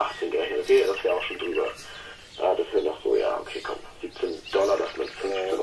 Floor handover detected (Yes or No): No